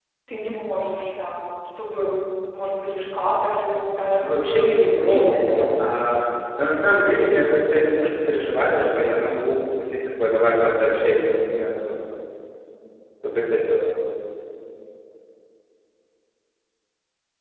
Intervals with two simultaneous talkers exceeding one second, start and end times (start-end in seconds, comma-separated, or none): 4.2-6.0